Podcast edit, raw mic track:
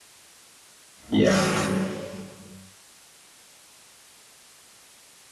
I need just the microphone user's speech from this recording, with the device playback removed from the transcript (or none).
yeah,